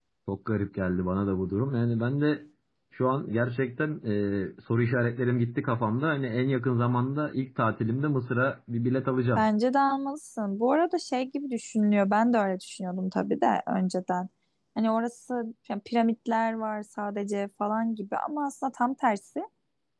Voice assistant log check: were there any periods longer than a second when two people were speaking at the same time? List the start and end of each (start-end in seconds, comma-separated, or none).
none